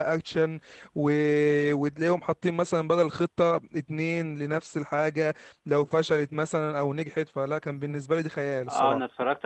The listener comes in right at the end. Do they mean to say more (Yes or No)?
Yes